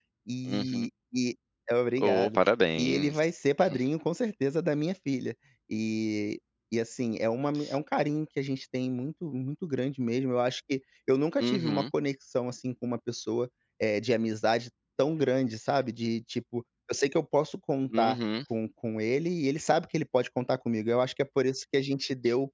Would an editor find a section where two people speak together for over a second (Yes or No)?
No